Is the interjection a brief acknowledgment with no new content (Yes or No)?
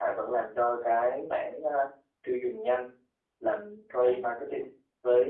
Yes